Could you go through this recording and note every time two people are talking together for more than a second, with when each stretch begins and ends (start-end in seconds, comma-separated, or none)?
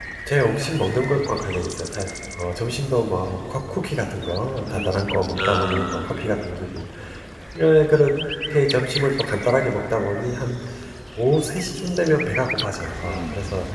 4.7-6.1